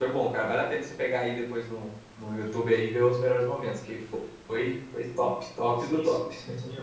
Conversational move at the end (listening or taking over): taking over